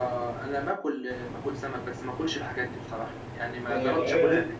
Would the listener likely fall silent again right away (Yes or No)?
No